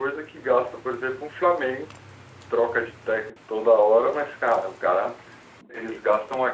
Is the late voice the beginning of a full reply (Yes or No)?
No